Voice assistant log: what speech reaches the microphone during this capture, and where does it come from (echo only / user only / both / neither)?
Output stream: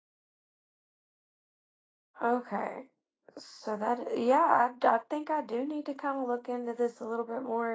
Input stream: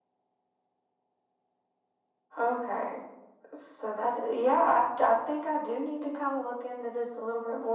echo only